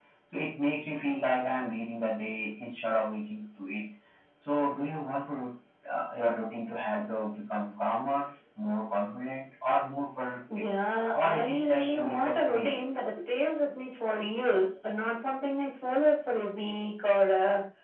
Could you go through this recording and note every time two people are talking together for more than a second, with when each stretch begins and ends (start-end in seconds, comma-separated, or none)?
11.1-12.7